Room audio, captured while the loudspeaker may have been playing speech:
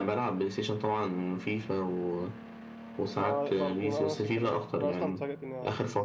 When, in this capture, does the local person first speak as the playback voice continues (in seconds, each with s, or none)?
3.1 s